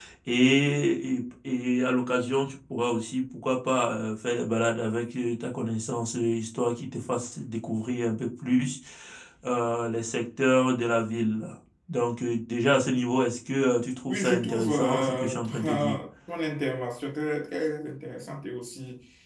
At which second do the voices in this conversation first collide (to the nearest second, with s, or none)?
14 s